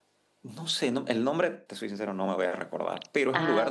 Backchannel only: Yes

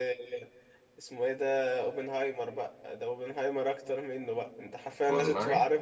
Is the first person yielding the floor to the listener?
No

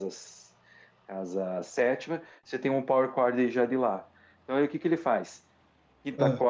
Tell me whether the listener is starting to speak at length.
No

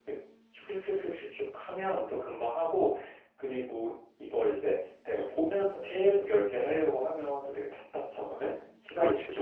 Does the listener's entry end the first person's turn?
No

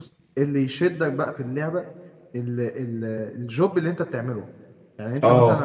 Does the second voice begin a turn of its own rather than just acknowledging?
No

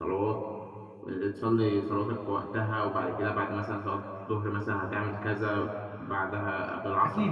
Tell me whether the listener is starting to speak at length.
Yes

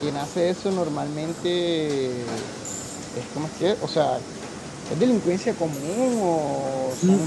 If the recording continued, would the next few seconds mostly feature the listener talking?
Yes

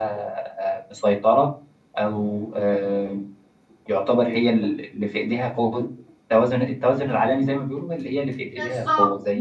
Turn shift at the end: Yes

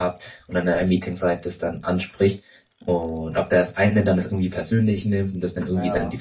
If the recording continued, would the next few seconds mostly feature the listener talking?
No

